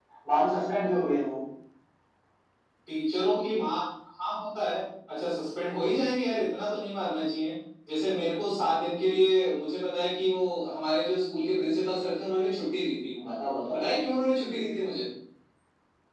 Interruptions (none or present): none